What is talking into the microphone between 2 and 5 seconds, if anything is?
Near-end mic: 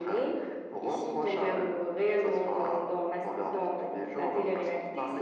echo only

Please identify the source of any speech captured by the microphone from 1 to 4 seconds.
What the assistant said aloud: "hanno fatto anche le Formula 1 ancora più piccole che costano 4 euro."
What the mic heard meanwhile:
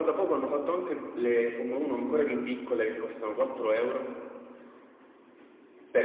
echo only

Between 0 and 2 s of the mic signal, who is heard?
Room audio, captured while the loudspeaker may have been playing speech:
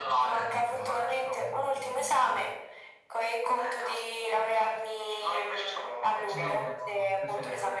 both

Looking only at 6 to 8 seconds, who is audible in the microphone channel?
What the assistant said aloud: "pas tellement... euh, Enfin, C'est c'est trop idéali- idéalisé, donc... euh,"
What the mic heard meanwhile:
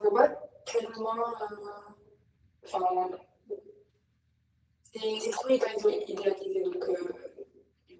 echo only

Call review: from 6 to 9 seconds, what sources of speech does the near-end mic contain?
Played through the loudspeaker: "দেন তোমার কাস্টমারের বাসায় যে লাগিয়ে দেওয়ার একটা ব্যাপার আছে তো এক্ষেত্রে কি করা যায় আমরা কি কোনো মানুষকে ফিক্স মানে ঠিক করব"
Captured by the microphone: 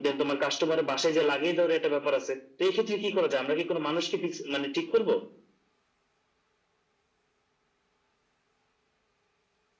neither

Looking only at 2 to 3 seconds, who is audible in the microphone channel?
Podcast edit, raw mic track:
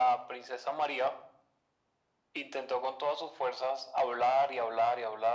echo only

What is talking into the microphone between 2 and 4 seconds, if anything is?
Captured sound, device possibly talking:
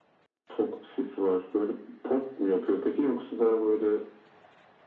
echo only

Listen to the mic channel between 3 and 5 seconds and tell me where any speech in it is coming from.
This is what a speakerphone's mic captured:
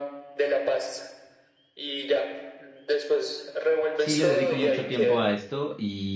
both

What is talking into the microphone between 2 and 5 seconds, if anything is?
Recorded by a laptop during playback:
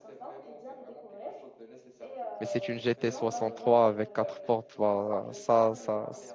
both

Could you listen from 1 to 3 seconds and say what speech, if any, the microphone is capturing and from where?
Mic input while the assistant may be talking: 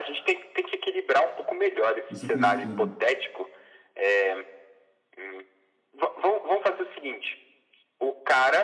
both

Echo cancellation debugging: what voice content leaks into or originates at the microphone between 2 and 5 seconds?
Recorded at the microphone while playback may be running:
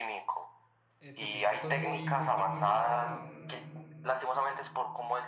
both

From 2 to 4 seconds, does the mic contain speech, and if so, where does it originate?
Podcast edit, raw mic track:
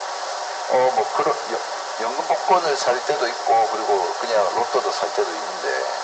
echo only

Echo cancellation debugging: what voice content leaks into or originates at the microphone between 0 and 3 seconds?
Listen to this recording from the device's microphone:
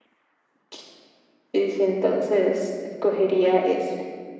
echo only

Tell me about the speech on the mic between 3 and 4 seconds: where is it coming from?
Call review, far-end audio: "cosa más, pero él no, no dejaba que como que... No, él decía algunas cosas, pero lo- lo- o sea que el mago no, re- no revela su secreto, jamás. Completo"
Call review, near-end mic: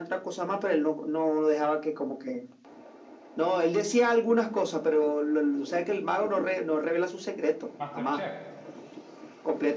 echo only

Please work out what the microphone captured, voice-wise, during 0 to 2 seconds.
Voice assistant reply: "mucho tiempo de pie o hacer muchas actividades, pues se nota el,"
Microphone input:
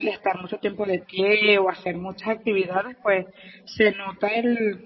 echo only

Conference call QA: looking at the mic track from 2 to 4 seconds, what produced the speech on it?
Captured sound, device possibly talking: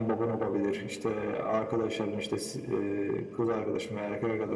echo only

